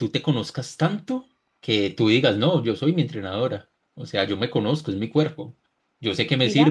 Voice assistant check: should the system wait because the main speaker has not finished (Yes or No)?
Yes